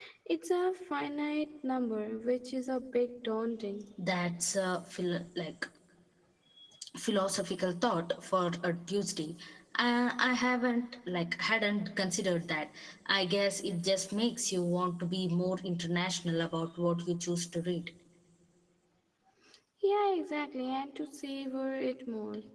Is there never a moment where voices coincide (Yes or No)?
Yes